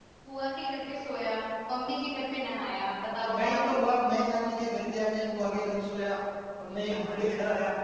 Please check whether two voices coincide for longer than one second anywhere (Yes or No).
No